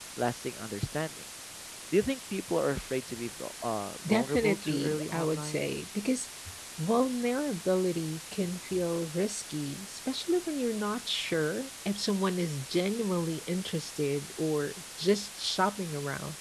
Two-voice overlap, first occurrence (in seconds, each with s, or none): 4.0 s